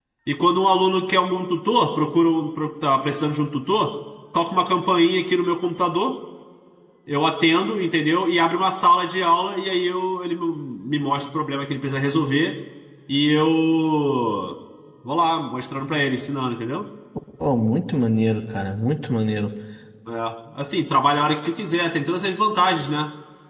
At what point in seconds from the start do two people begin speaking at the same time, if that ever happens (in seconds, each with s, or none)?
none